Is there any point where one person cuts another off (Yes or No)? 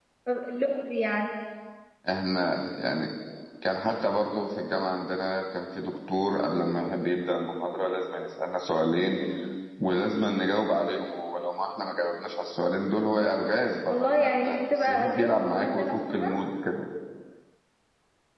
Yes